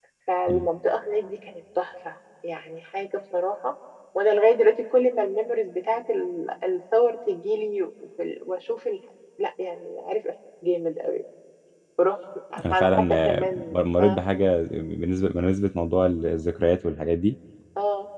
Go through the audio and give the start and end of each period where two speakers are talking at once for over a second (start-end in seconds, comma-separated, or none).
12.7-14.2